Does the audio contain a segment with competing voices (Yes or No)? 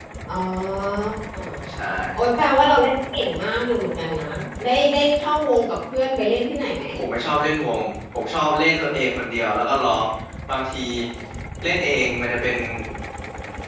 No